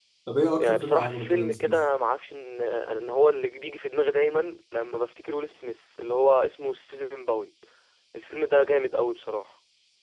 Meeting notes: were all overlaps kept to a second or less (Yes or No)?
No